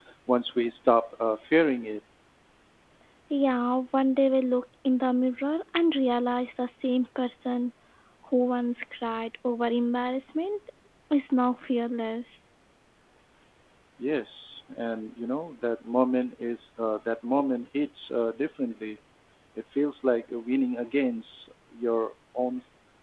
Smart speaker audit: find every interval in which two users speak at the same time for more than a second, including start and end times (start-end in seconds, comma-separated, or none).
none